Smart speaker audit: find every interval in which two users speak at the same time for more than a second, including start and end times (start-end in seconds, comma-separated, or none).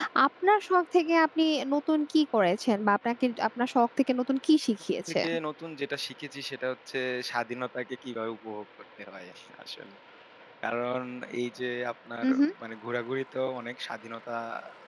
none